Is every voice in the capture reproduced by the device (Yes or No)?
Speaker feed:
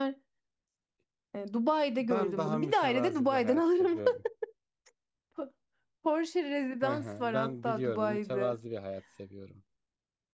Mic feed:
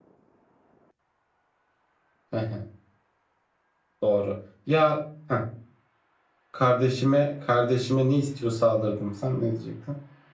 No